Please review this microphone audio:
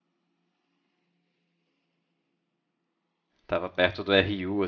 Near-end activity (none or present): present